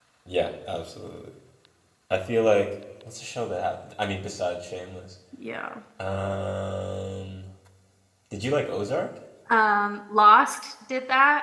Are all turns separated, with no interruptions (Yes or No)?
Yes